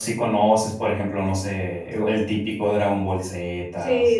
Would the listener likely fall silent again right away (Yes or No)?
No